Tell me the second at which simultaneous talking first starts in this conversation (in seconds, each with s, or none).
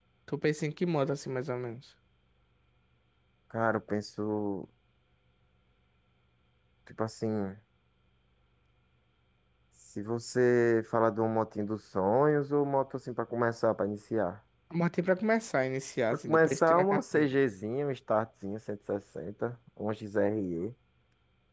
16.1 s